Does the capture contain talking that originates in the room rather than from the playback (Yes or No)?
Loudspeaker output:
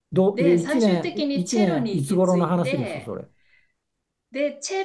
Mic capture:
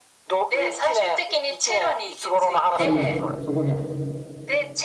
Yes